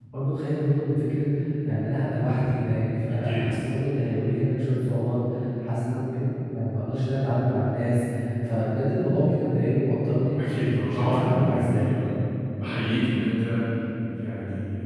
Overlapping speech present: Yes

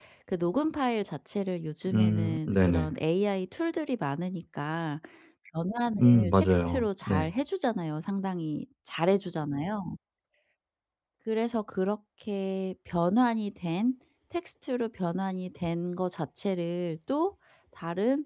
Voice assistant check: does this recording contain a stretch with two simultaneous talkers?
Yes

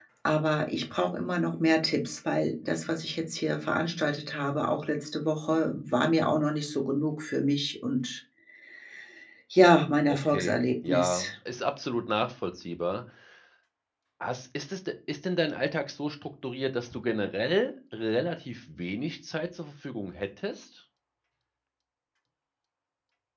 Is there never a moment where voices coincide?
No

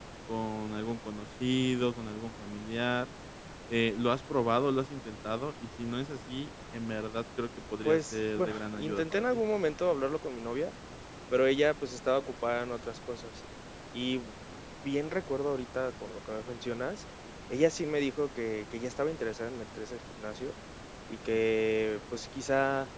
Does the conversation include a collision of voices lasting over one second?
Yes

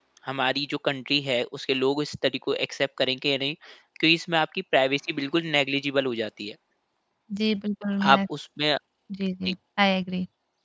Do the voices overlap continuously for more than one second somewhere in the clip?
No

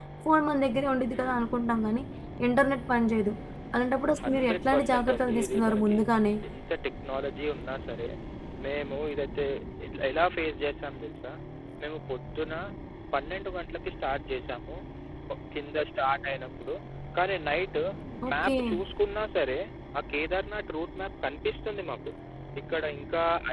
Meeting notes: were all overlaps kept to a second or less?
No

